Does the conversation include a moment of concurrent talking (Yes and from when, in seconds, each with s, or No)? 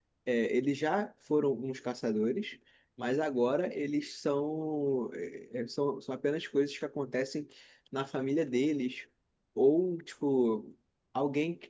No